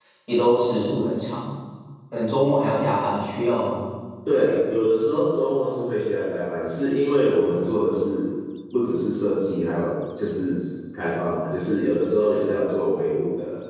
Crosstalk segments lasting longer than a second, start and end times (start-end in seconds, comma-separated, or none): none